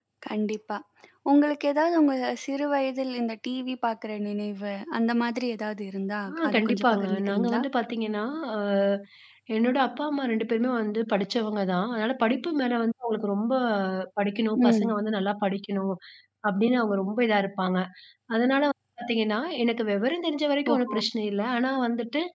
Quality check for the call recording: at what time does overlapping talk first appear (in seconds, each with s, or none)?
6.4 s